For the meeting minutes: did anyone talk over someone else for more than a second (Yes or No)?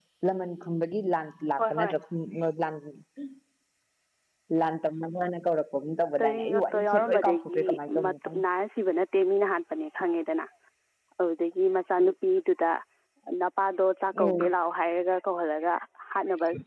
Yes